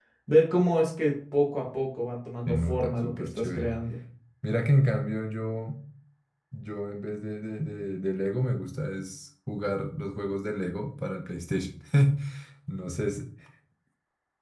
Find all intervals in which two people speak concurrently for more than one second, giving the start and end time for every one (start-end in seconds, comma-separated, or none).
2.5-3.7